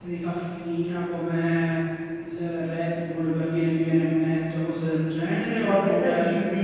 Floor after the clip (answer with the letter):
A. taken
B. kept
A